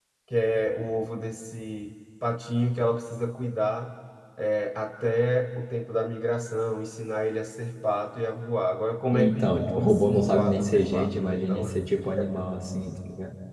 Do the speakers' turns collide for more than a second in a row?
Yes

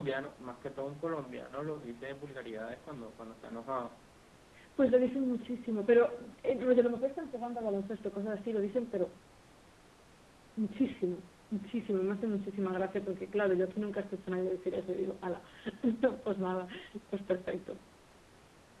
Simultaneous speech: No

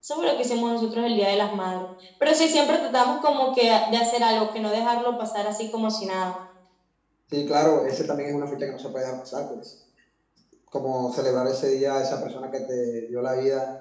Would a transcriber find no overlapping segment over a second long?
Yes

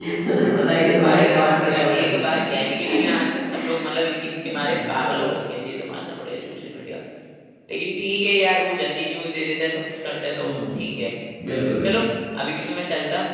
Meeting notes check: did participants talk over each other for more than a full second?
Yes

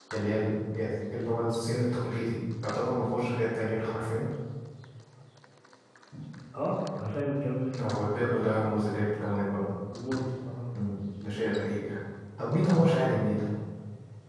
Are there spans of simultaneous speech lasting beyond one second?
No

